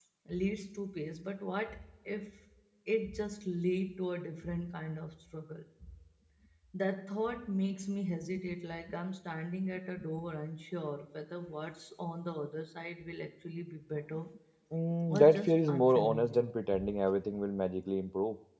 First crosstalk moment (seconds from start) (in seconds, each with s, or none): 15.1 s